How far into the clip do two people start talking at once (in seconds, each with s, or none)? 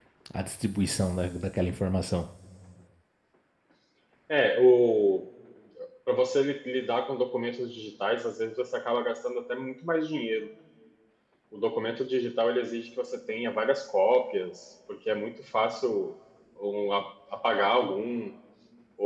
none